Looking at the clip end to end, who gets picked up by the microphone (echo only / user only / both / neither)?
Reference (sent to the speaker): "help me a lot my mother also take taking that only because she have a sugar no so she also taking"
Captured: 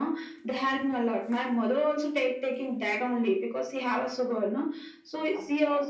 echo only